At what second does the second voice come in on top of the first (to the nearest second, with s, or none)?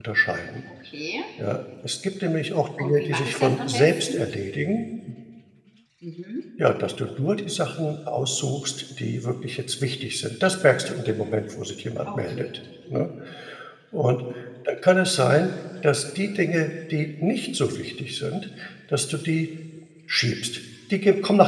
3 s